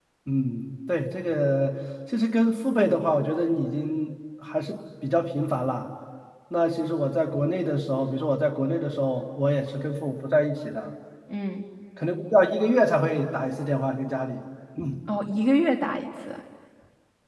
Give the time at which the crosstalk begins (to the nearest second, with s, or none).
none